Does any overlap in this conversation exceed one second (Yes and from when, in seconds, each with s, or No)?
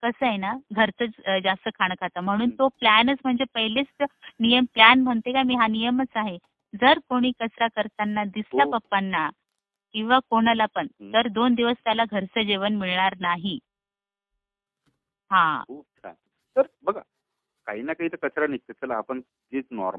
No